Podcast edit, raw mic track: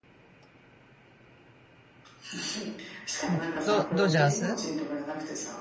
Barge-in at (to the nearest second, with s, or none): 3 s